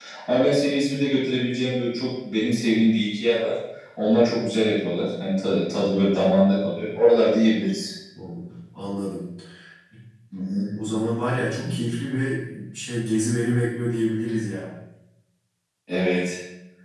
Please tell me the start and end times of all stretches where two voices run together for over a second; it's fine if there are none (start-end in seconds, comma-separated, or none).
none